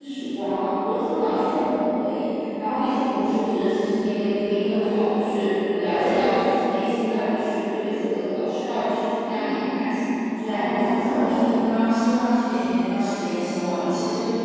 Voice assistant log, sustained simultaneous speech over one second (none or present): present